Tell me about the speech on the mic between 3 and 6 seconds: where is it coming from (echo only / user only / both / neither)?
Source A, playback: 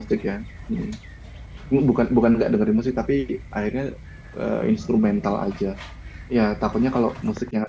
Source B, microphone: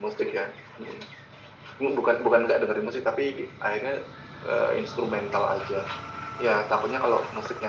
echo only